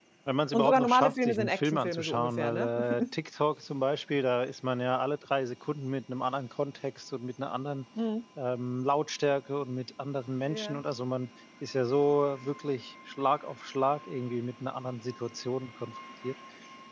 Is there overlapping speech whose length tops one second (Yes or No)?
Yes